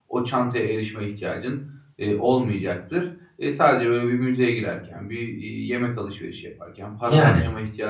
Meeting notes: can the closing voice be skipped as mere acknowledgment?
Yes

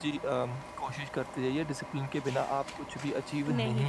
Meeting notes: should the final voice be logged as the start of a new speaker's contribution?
Yes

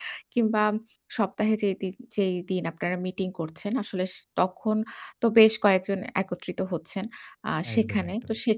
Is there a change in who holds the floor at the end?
No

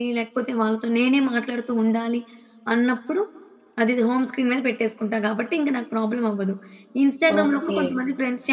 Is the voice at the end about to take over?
No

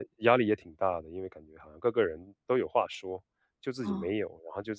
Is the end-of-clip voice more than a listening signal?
No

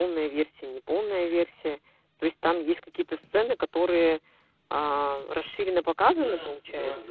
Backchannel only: No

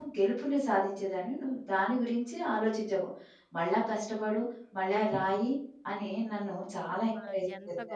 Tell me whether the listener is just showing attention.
No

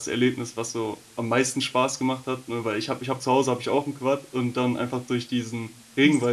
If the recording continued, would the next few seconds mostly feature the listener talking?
No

